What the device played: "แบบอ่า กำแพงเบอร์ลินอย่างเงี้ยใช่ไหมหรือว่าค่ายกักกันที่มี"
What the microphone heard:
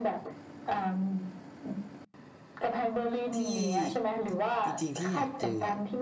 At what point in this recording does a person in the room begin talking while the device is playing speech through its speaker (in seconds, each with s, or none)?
3.3 s